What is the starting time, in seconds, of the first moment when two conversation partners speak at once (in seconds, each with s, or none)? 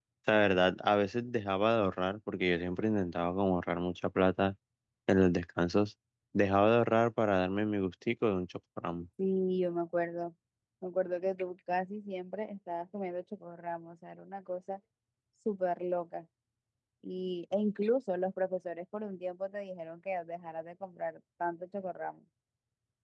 none